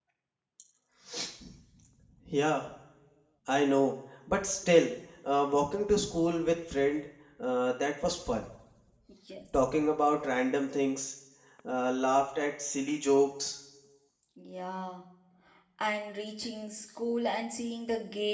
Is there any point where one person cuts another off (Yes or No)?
No